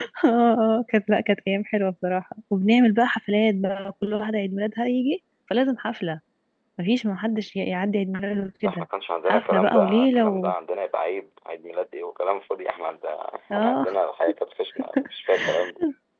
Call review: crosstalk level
present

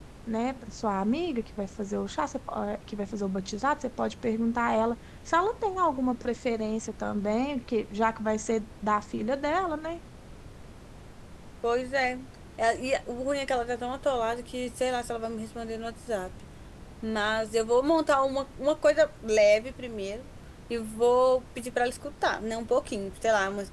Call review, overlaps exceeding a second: none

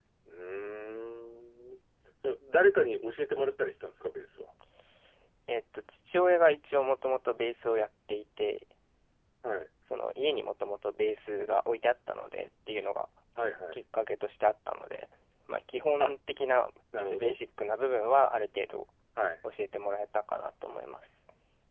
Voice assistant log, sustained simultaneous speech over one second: none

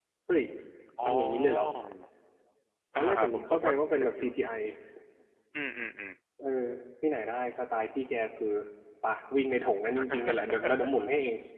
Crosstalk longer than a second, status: present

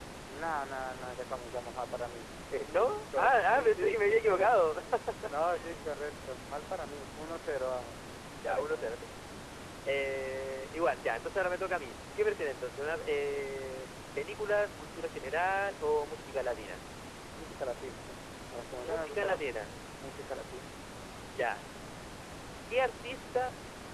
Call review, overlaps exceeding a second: present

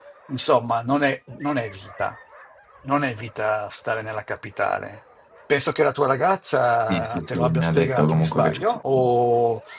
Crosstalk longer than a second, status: present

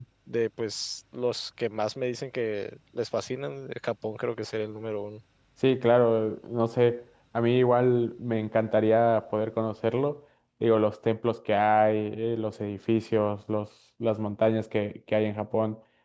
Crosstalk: none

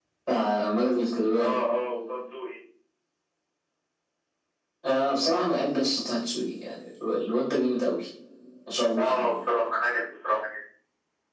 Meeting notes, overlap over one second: none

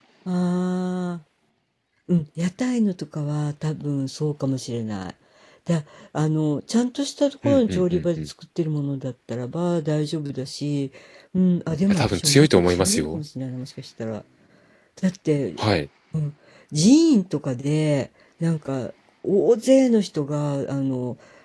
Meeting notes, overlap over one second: present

